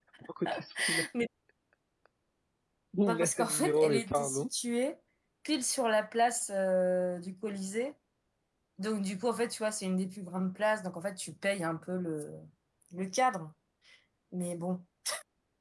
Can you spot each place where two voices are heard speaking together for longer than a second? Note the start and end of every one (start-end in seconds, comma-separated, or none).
3.0-4.5